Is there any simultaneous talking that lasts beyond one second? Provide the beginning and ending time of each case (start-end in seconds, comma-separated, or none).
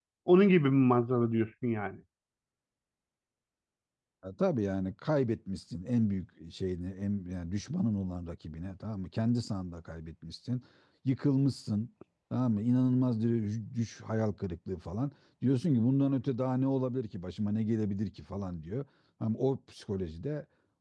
none